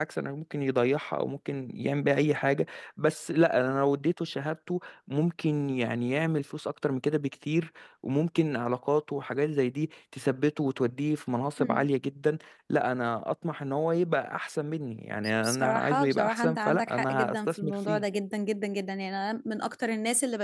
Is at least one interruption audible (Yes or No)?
Yes